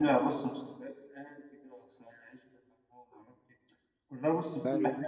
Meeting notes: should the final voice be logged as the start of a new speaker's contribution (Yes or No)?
No